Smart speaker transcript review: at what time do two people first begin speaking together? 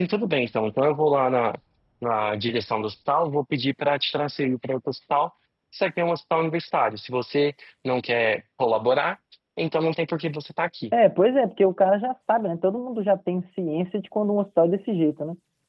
none

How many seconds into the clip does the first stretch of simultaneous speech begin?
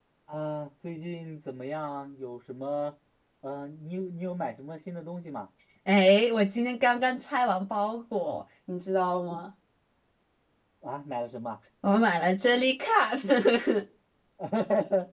none

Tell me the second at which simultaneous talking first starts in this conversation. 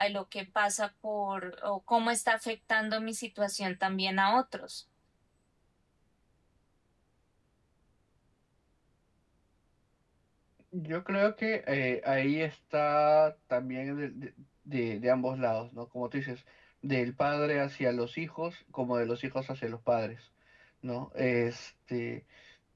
none

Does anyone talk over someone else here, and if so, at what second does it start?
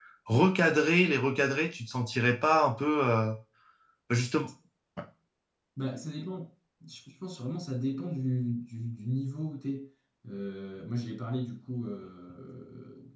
none

